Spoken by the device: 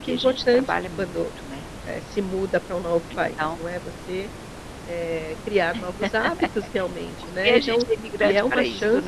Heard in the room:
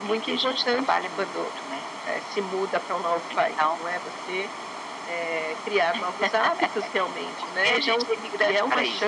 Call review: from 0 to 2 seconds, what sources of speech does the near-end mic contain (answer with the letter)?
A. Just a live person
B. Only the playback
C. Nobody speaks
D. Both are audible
B